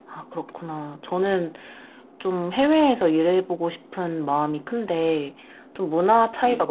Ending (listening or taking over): listening